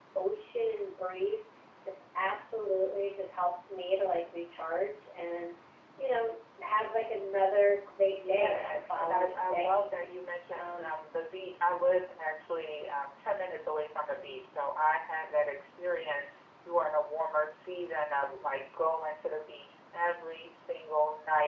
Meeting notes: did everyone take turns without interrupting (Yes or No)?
No